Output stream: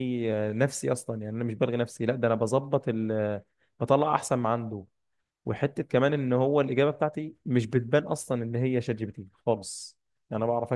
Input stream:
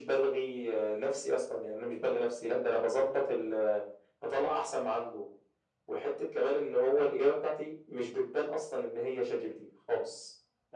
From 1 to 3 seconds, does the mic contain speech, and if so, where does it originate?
echo only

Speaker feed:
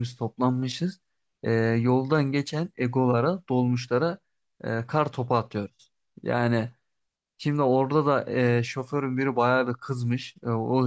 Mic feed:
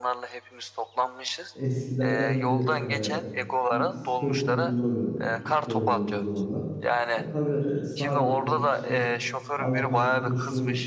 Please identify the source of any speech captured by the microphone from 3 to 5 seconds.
both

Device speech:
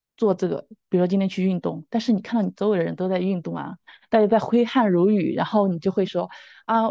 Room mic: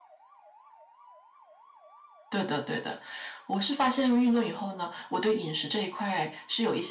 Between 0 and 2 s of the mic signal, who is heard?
neither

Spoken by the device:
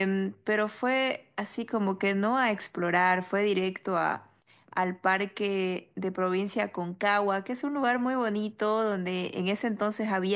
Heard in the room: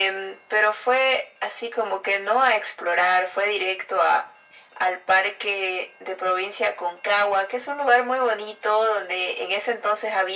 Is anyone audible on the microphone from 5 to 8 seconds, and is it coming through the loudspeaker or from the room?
echo only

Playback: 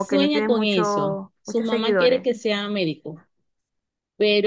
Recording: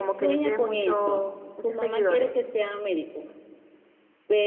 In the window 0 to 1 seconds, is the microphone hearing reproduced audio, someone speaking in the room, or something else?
echo only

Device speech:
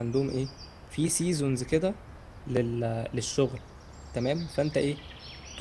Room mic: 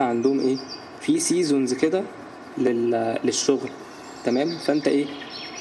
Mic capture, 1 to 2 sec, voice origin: echo only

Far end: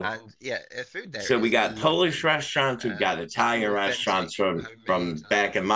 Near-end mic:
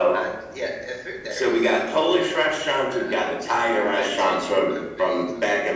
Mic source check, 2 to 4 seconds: echo only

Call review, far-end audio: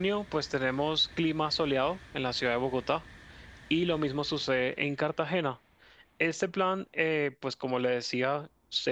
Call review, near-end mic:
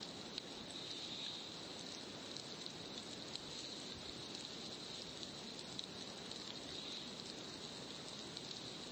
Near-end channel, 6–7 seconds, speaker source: neither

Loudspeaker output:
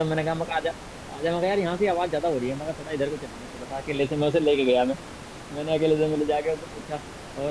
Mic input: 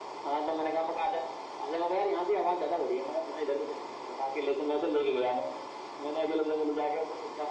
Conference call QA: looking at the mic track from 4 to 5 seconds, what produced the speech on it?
echo only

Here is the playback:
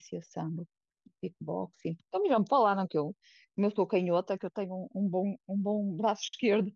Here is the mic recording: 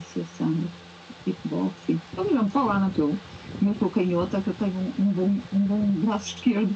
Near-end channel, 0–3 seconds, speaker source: echo only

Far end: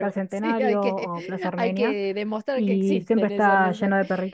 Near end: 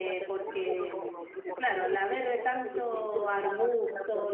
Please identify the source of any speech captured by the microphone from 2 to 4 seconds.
both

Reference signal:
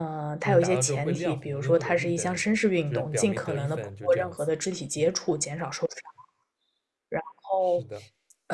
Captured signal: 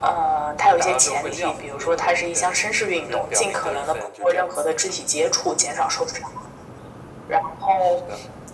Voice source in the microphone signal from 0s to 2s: echo only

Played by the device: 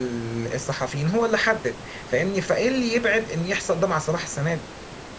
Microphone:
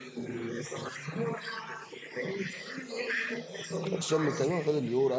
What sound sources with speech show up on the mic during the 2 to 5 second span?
both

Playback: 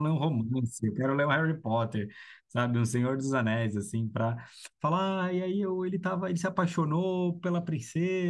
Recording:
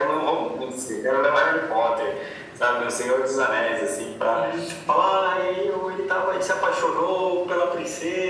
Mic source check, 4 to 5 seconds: both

